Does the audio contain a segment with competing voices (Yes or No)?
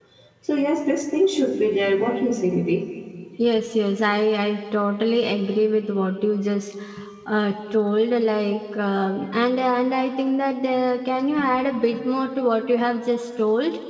No